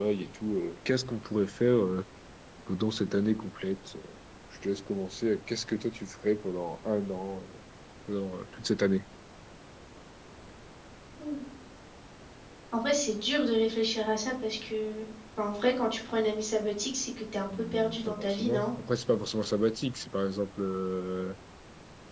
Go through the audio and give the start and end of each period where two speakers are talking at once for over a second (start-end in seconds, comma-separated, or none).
17.5-18.7